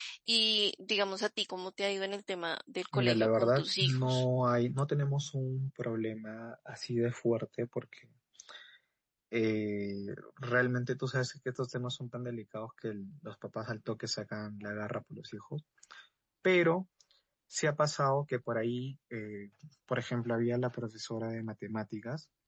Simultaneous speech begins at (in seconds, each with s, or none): 2.9 s